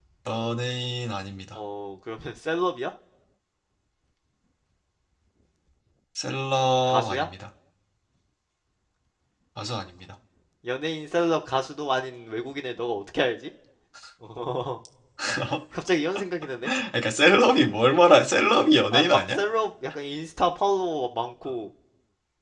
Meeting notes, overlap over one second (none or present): none